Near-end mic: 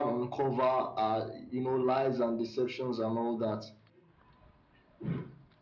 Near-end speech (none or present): none